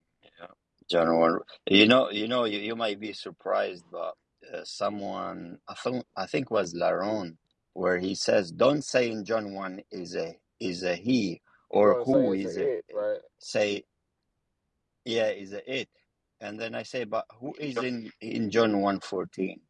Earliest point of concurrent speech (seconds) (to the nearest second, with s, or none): 12 s